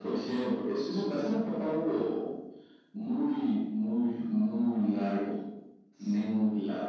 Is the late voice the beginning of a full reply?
No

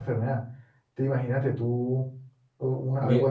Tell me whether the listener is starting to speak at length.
No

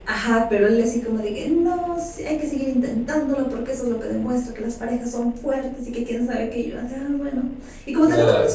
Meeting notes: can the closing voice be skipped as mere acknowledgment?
Yes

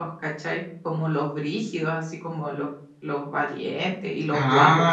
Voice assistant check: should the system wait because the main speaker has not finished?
No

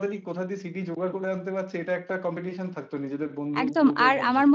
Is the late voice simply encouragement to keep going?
No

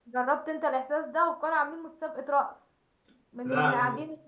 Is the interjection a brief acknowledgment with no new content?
Yes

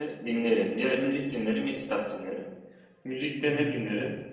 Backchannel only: Yes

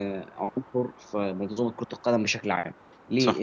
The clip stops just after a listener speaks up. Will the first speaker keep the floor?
Yes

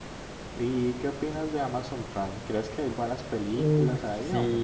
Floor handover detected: Yes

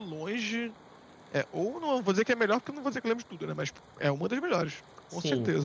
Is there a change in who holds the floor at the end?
Yes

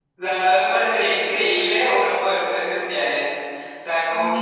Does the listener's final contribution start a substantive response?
No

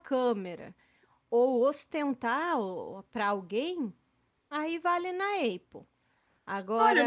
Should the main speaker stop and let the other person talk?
Yes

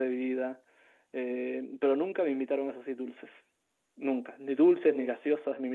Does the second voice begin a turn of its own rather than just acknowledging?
No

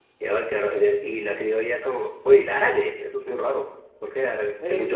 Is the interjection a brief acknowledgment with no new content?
No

